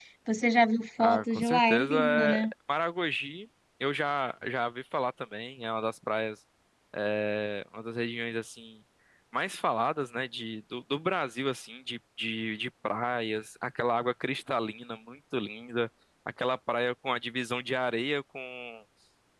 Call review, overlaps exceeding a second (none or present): present